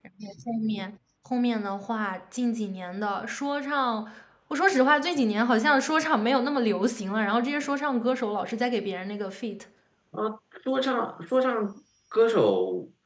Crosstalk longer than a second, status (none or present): none